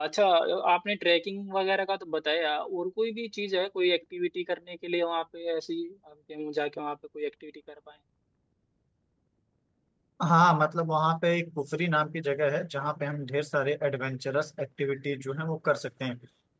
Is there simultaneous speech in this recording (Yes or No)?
No